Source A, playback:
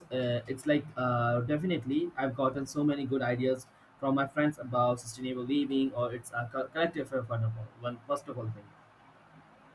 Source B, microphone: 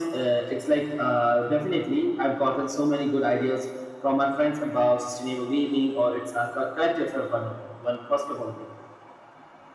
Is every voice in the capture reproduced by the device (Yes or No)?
Yes